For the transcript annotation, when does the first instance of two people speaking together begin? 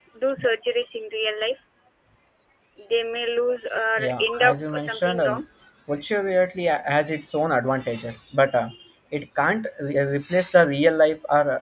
4.0 s

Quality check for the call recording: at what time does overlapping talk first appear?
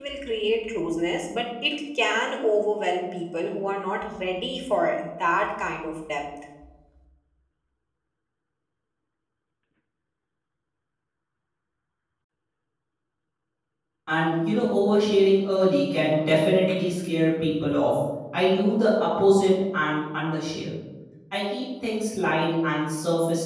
none

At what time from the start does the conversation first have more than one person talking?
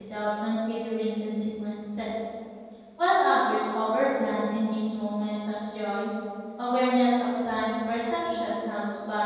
none

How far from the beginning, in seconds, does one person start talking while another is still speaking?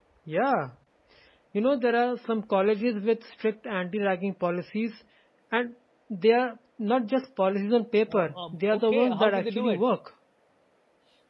8.1 s

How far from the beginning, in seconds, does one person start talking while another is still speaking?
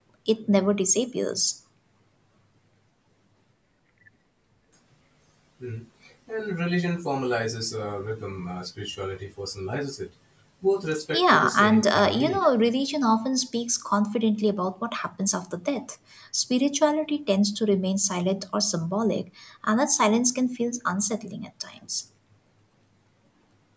11.1 s

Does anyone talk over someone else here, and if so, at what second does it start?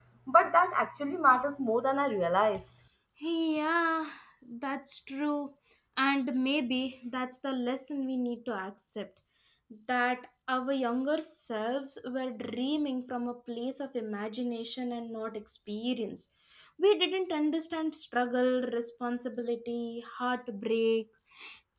none

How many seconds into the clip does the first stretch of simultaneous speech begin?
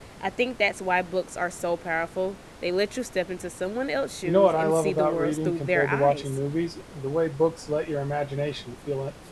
4.2 s

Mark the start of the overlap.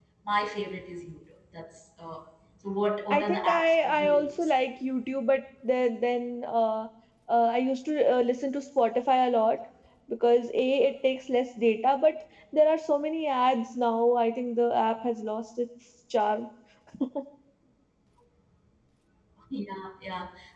3.1 s

